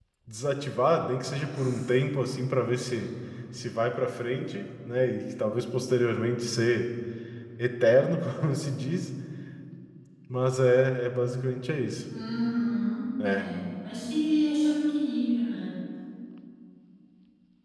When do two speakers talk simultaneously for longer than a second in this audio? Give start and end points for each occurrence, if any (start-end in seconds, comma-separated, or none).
none